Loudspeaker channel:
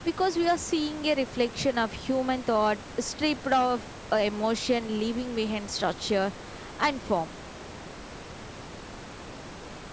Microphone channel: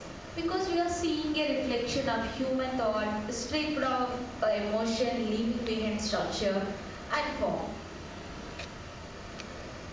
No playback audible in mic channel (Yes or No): No